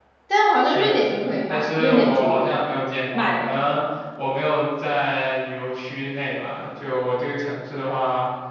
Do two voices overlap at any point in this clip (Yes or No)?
Yes